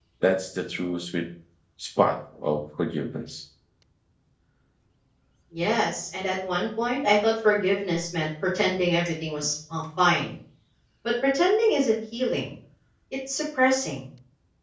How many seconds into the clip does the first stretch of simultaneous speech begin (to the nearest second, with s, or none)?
none